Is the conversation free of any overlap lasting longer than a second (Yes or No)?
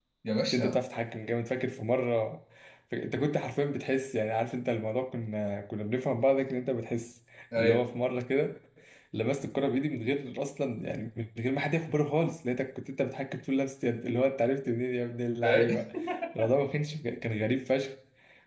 Yes